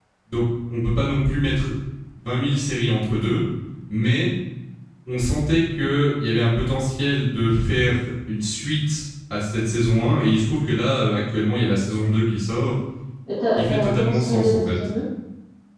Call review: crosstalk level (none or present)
present